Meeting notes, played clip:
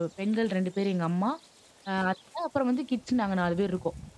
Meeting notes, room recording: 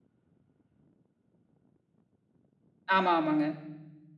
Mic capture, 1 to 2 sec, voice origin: neither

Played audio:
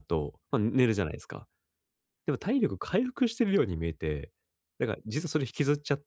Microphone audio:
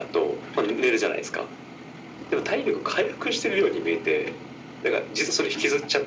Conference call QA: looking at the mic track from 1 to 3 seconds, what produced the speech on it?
echo only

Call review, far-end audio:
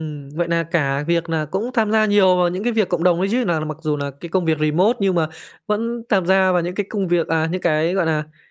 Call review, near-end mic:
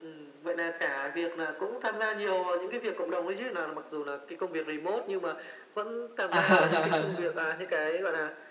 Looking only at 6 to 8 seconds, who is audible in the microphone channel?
both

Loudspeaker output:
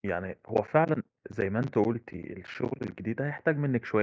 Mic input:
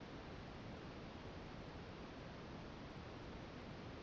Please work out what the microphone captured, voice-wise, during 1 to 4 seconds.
neither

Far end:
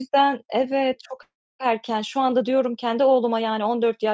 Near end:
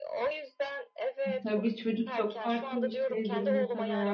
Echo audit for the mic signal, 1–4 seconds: both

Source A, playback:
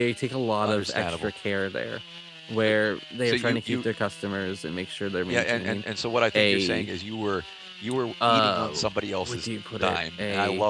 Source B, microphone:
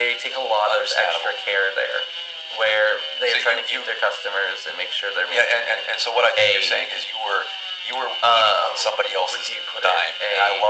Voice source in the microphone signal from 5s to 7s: echo only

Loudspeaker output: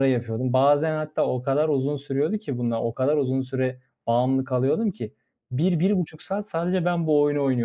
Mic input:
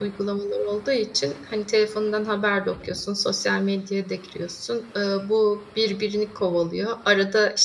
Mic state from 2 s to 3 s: user only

